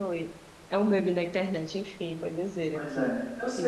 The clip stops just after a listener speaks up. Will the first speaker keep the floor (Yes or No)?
No